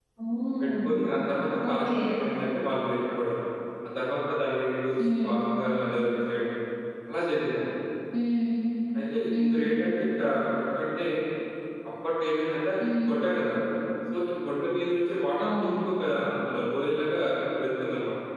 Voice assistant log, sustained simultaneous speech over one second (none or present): none